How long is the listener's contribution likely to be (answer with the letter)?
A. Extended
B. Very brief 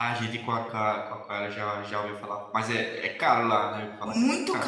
A